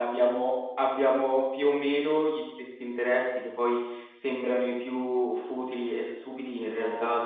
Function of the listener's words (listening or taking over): listening